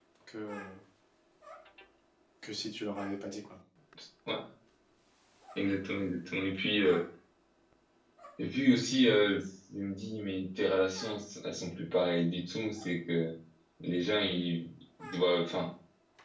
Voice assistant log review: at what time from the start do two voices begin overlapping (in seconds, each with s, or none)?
none